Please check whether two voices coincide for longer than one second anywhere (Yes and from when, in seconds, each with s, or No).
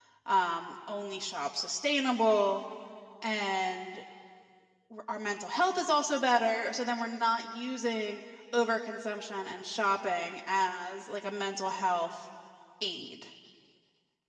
No